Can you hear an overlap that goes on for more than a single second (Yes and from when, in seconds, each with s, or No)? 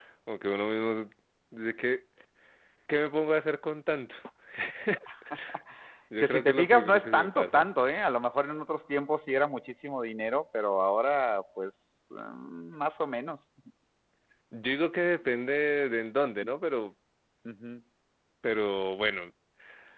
Yes, from 6.2 s